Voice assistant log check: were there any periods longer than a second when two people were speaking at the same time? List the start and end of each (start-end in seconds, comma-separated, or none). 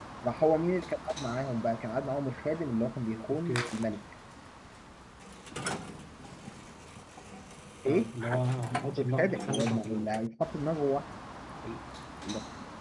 8.7-10.1